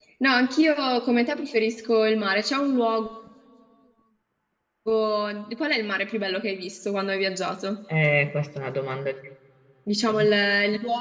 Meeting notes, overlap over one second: none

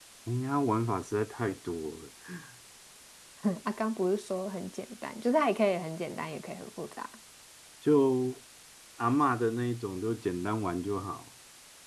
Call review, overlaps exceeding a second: none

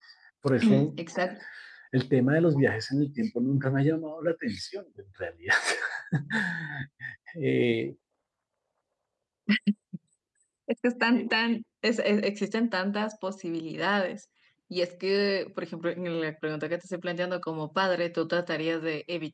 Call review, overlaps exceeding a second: none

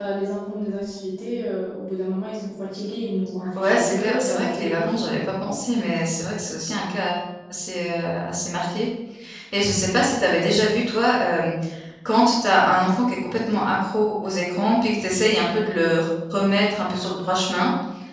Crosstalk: present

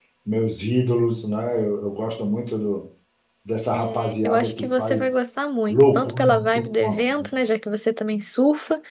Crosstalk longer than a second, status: present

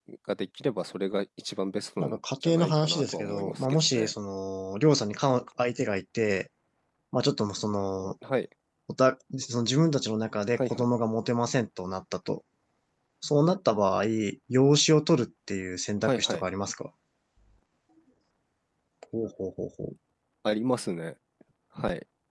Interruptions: present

